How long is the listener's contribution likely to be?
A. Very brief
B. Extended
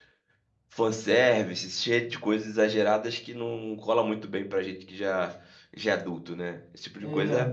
B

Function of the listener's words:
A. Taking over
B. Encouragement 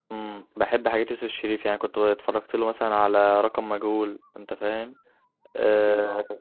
B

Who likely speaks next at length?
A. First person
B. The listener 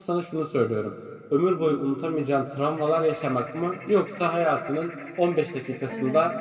A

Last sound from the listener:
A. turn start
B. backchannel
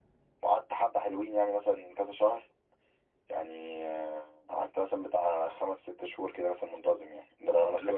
A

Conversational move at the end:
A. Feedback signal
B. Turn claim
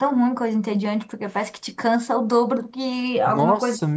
B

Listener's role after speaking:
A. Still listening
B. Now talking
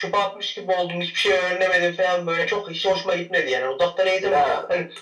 A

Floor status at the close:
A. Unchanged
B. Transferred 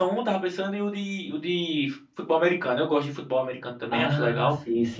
B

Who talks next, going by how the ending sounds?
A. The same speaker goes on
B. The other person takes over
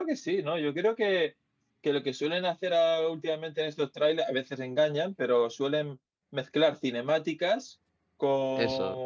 A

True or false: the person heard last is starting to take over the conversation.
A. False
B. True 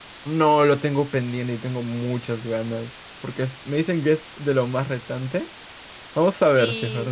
B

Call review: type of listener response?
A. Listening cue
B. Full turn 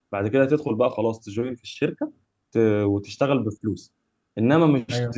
A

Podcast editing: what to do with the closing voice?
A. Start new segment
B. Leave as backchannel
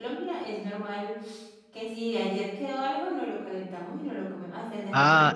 A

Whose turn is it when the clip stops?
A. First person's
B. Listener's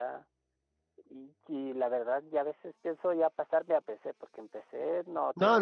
B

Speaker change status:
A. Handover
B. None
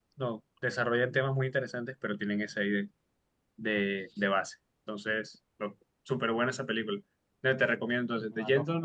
B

